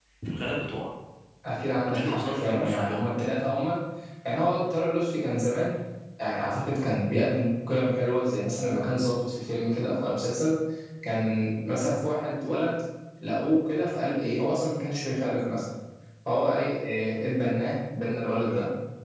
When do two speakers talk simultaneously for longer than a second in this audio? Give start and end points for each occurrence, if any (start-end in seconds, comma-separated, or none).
1.8-3.1